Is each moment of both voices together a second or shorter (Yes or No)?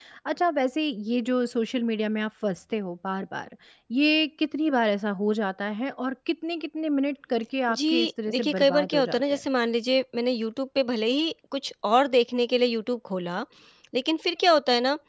No